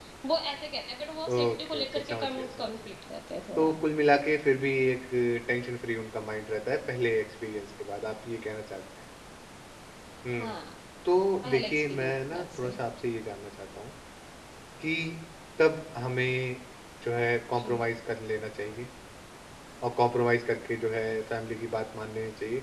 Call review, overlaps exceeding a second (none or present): present